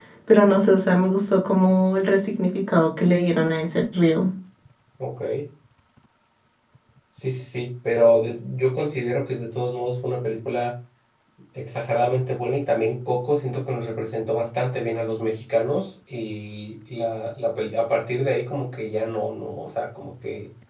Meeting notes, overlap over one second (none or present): none